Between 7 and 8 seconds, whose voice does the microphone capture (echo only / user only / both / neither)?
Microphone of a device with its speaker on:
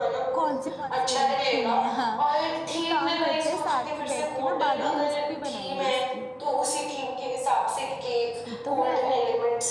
echo only